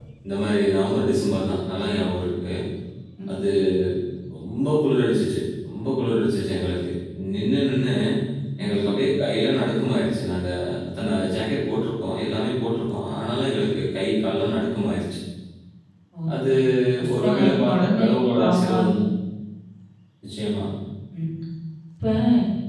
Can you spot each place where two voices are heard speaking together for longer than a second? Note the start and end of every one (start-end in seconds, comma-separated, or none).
17.1-18.9